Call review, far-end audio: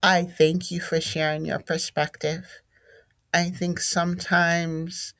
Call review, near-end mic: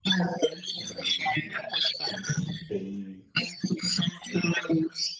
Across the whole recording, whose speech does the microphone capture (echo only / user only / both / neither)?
both